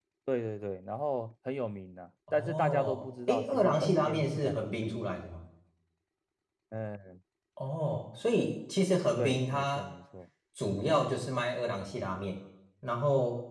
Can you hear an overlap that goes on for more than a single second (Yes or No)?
Yes